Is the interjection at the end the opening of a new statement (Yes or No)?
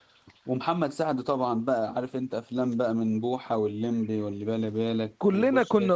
Yes